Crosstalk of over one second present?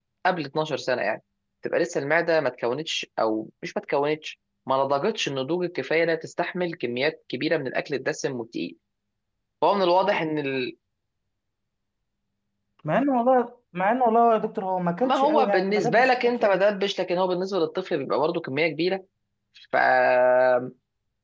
Yes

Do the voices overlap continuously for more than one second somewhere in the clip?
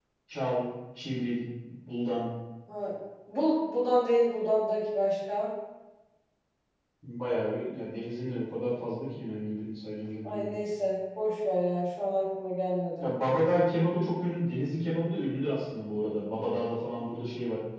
No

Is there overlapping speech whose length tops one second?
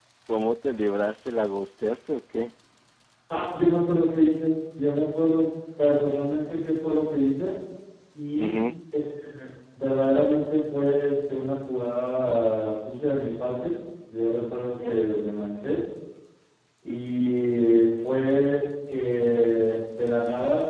No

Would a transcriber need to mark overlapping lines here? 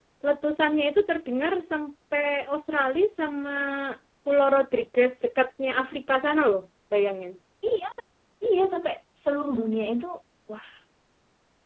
No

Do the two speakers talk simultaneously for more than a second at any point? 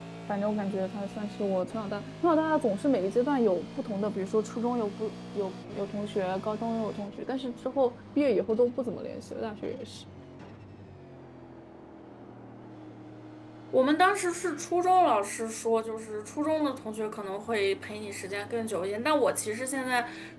No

